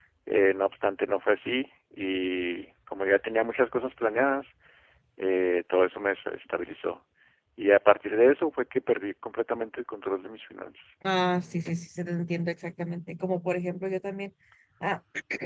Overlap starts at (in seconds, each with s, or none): none